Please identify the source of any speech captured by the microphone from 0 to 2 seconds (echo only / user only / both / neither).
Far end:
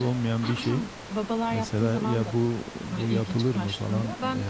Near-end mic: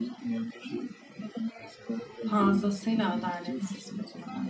echo only